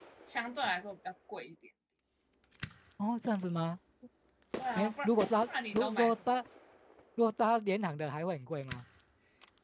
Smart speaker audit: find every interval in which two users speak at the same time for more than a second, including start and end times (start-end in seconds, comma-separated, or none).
4.8-6.2